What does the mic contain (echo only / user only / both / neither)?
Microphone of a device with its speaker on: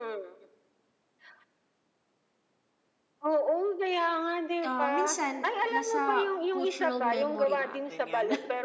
both